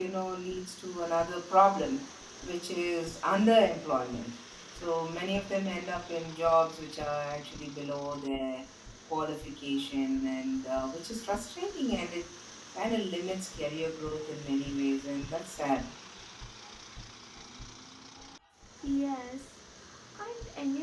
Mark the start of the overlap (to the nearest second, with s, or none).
none